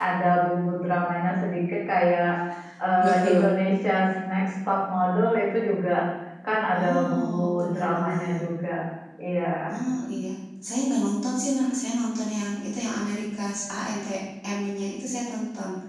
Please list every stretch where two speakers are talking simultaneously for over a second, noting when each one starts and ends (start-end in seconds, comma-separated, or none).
6.7-8.4